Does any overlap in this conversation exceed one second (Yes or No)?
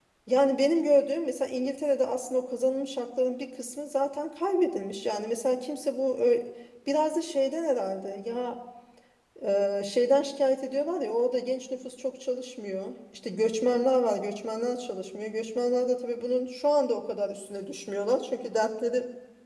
No